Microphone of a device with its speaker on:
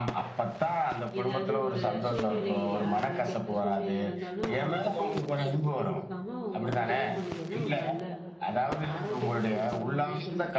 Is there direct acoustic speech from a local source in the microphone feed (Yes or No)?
Yes